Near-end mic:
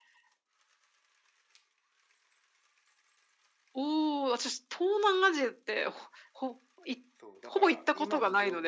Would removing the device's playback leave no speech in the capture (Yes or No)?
No